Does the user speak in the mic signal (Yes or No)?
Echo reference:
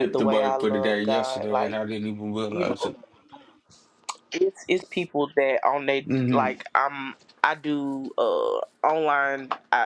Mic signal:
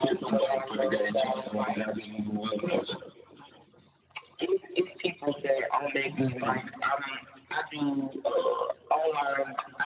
No